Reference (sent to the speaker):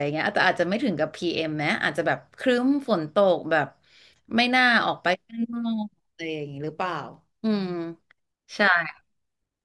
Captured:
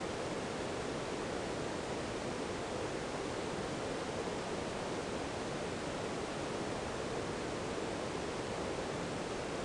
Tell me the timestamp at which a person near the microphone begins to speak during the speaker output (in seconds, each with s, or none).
none